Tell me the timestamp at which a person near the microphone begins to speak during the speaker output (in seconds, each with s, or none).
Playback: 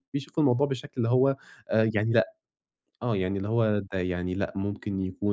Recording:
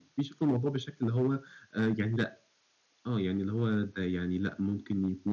none